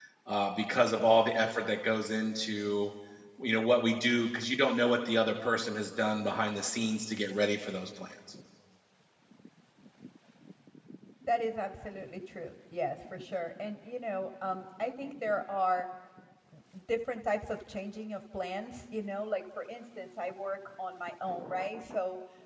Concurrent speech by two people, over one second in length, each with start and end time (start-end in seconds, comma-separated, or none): none